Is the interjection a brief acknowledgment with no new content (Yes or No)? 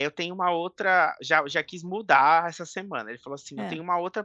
Yes